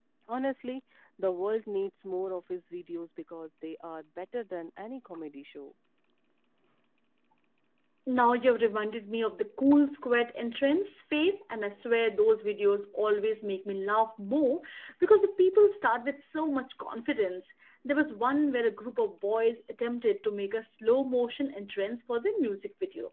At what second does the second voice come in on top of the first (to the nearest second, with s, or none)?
none